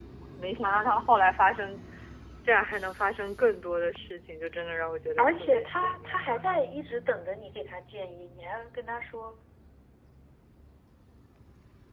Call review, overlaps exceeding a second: present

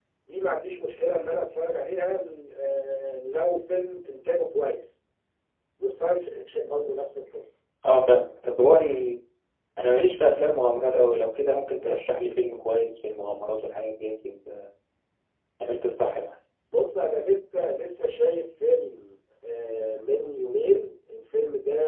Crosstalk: none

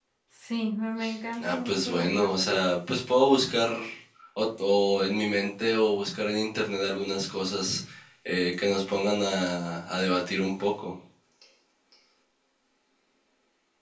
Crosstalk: present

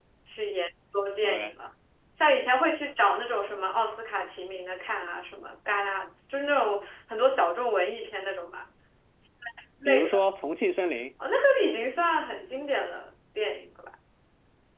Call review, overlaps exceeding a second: none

